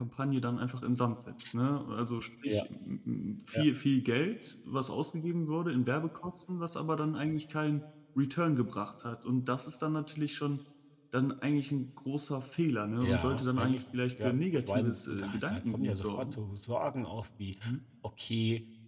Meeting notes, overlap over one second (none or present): present